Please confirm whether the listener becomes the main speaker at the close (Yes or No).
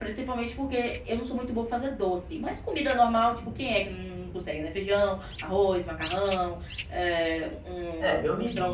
Yes